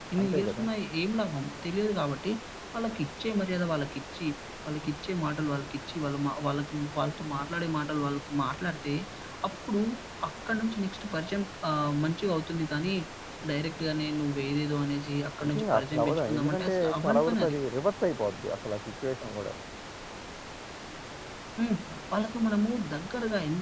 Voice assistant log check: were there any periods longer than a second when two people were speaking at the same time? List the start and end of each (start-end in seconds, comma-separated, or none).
15.4-17.6